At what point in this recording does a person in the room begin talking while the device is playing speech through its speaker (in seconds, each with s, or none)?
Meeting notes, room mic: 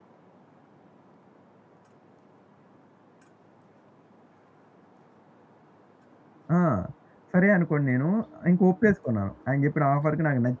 6.6 s